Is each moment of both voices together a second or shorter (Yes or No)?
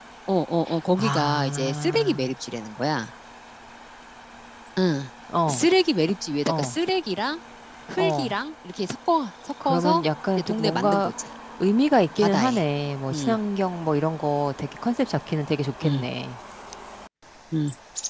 No